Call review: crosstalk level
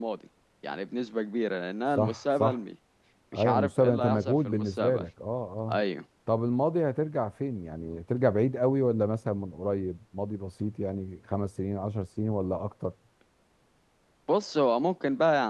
present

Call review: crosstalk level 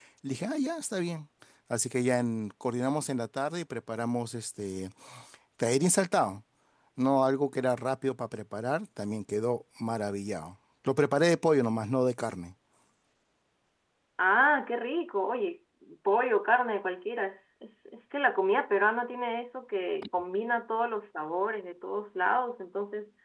none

